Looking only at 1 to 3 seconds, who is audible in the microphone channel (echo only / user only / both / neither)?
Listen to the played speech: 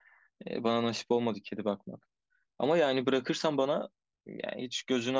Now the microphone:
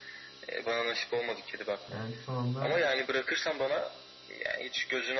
both